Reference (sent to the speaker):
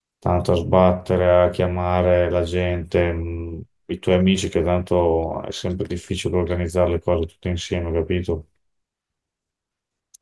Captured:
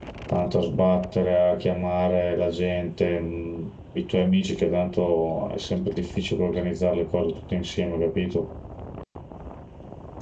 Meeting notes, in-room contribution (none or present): none